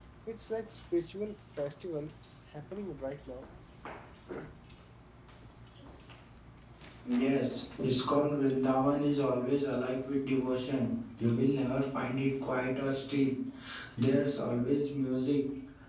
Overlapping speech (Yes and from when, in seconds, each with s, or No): No